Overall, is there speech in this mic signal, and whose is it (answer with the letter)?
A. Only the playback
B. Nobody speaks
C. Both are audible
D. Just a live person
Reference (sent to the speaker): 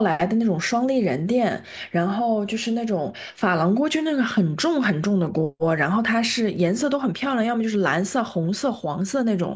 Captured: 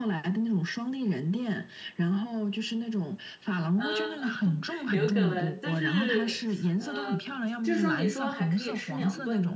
C